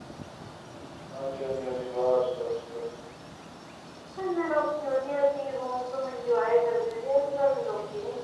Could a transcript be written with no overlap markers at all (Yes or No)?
Yes